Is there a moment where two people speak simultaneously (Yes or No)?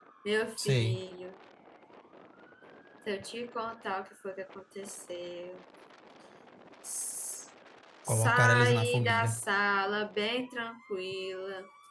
Yes